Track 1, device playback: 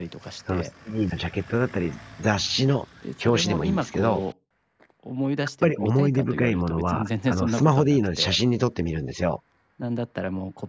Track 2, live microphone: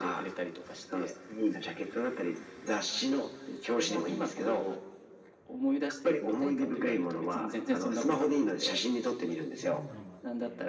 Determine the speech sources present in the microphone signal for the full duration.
both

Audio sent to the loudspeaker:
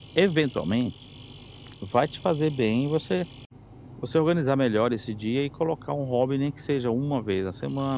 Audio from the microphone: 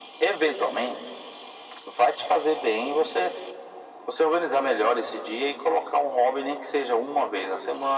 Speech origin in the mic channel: echo only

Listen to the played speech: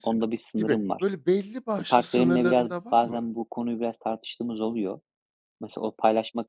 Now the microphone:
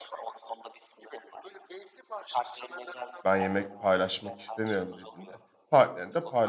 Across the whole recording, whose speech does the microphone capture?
both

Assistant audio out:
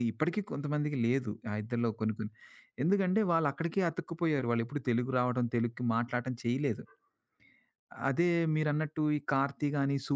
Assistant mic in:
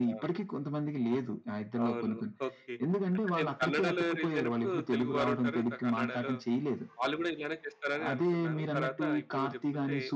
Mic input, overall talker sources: both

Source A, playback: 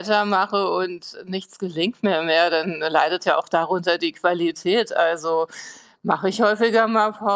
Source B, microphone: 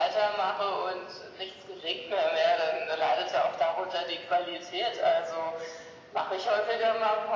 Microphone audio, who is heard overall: echo only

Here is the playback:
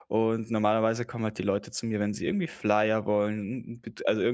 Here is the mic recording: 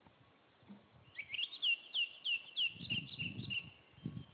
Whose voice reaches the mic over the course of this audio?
neither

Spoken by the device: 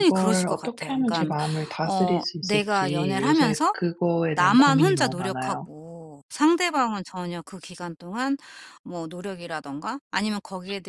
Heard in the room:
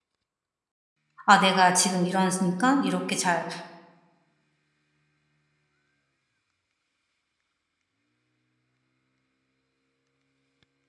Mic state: user only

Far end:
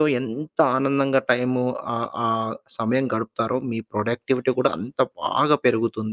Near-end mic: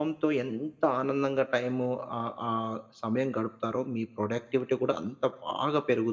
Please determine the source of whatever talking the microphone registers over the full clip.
echo only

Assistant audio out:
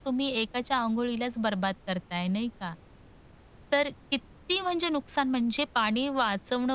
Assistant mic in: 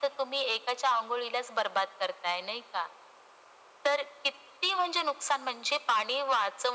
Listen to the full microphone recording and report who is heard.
echo only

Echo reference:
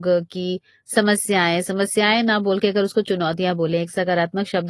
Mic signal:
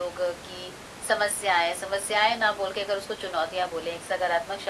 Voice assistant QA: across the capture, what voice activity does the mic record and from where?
echo only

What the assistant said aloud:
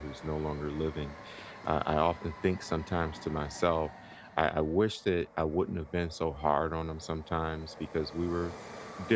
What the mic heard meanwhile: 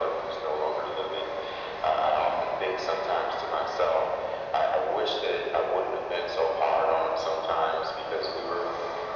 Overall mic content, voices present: echo only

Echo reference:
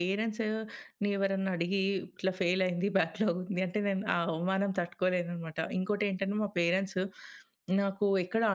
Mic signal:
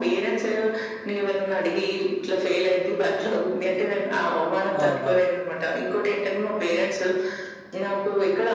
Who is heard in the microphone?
both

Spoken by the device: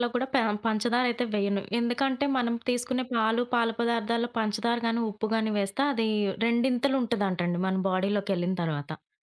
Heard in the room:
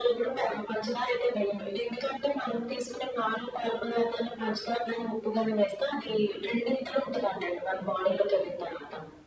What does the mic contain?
echo only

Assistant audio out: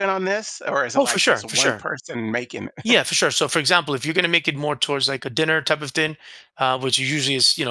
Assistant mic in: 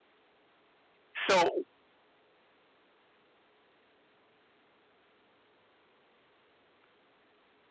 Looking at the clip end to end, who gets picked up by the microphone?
user only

